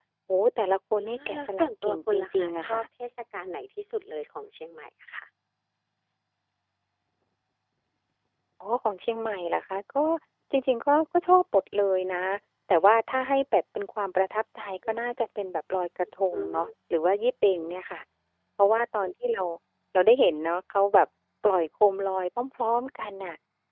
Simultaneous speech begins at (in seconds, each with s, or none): 1.0 s